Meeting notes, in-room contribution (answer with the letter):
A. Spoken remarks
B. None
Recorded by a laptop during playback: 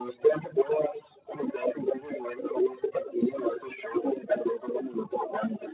B